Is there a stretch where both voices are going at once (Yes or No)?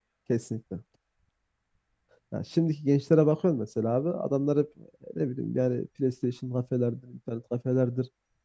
No